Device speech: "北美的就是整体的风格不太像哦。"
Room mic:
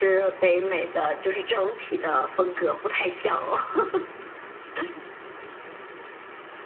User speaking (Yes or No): No